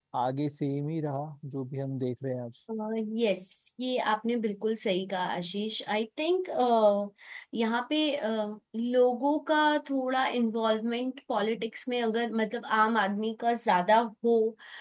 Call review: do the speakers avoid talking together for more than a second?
Yes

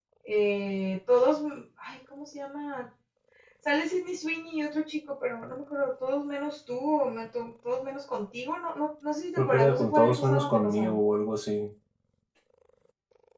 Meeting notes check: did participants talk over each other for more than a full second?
Yes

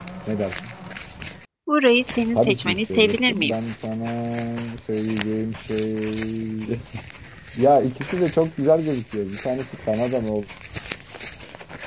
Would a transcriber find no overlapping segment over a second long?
No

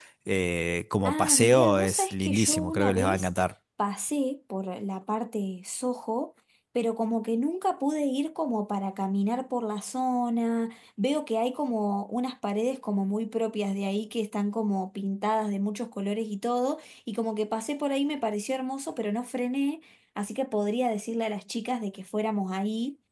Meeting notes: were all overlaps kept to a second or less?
No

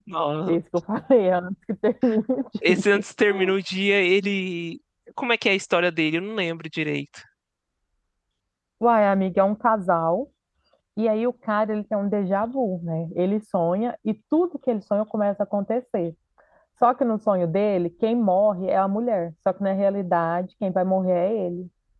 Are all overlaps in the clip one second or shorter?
Yes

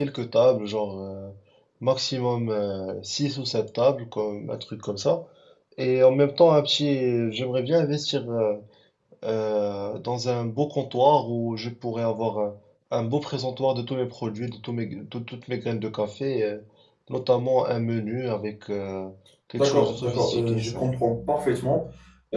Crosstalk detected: Yes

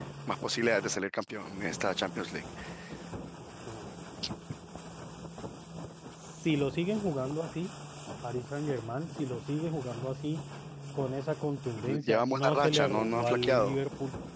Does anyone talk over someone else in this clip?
Yes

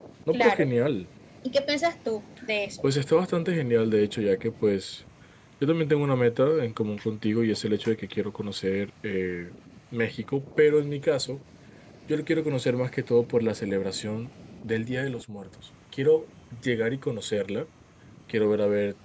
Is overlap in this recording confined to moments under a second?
Yes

